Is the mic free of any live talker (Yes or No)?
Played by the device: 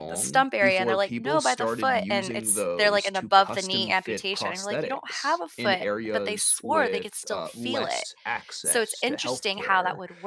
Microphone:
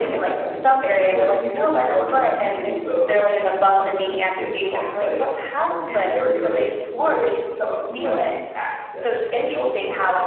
Yes